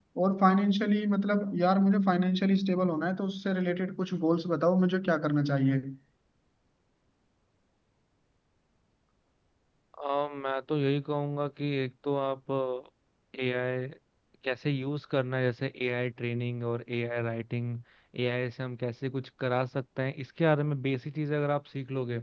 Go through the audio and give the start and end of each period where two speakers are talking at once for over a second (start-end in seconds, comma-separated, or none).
none